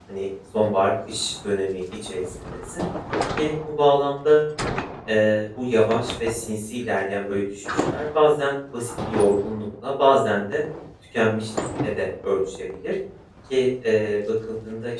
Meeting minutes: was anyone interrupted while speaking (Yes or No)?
No